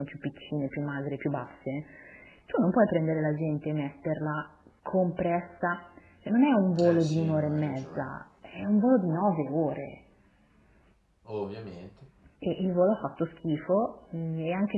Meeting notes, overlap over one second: present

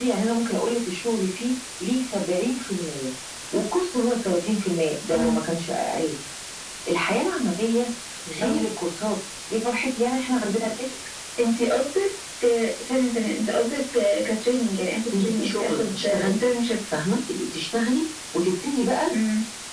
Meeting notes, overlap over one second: present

